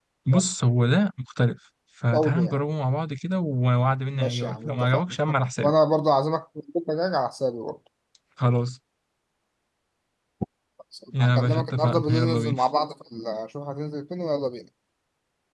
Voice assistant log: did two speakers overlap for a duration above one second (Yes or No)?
Yes